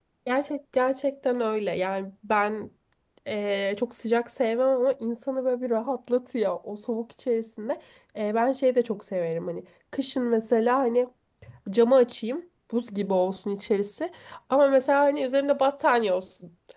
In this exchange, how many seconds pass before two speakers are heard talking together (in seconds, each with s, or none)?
none